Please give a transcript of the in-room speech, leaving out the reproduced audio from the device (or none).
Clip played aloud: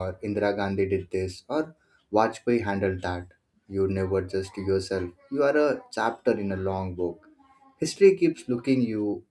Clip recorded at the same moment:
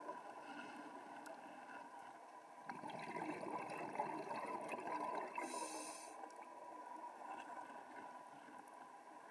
none